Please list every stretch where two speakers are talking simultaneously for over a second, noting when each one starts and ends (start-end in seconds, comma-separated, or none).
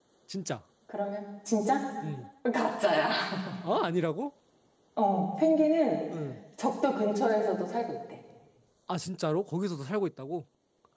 none